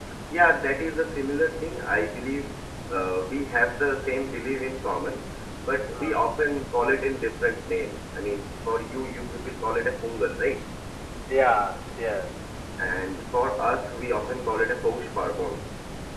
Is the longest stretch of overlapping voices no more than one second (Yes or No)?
Yes